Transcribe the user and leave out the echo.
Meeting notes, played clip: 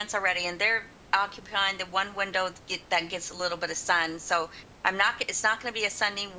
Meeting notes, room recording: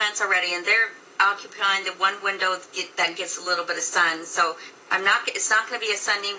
none

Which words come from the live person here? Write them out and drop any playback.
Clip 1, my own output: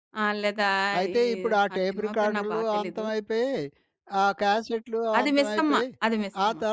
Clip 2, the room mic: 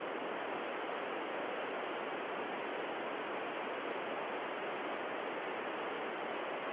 none

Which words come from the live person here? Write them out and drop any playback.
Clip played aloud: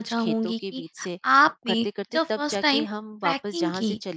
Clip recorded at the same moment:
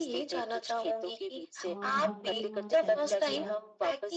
और हमने वहाँ ट्रैकिंग किया

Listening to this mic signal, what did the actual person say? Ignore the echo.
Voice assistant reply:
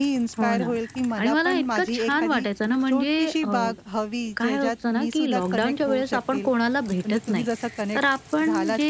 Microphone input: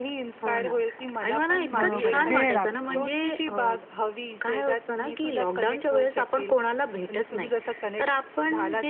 बरोबर आहे, वेळ लागतो.

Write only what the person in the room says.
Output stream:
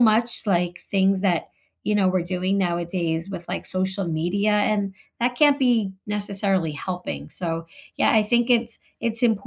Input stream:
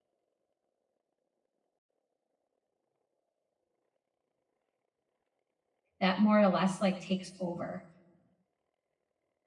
that more or less like takes over.

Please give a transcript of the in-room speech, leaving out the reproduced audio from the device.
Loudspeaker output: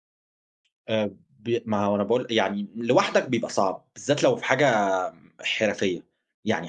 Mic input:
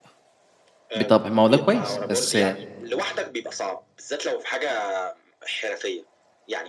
بطبع ما هو ده كويس، بس

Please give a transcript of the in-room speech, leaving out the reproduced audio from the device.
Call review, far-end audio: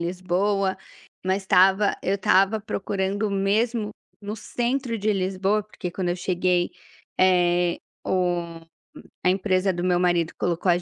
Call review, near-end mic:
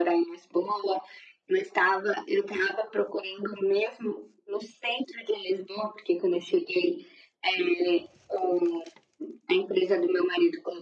none

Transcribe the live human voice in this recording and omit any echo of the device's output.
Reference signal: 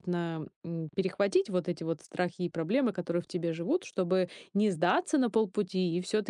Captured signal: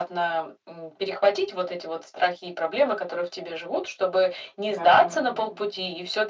да, да.

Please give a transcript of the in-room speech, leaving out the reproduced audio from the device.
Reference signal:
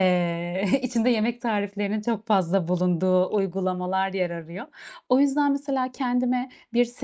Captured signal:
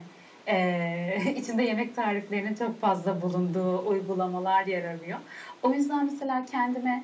none

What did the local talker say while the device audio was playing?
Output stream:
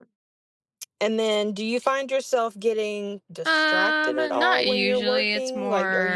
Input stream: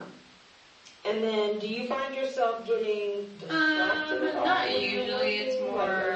none

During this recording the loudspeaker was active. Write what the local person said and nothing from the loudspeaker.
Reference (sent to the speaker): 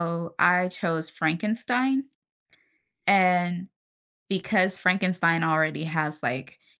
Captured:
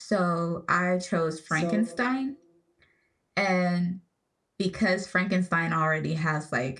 So

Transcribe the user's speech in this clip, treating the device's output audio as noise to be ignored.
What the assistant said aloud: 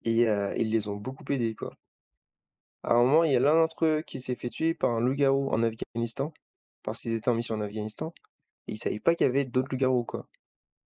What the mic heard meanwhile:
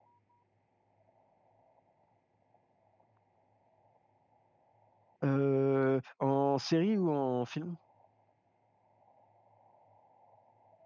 Heu, en série ou en film?

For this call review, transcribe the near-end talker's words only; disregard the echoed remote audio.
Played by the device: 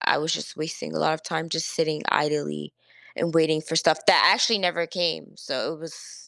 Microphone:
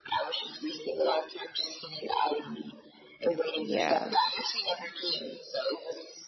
Yeah.

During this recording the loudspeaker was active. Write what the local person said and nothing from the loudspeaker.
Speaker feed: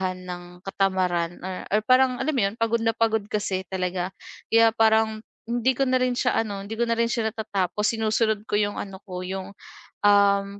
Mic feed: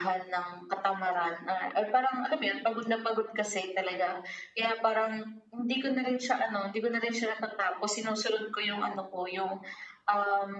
none

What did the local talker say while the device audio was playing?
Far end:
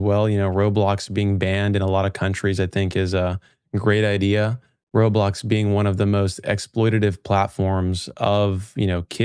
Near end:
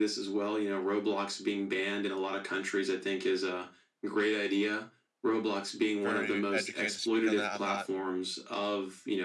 very educated to speak on that. I'm not

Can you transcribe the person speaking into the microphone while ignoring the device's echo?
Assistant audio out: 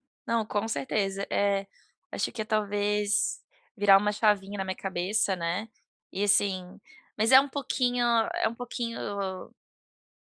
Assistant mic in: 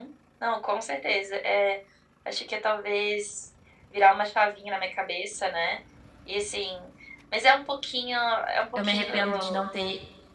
eu me arrependo de não ter",

